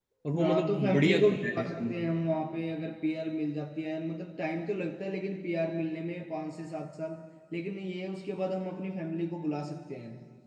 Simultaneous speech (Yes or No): Yes